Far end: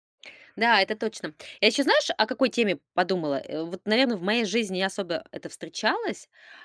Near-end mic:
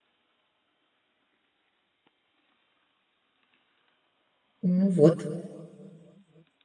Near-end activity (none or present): present